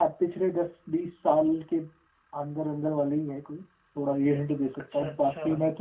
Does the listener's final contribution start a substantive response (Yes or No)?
No